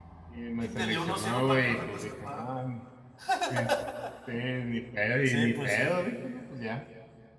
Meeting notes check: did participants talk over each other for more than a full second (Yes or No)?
Yes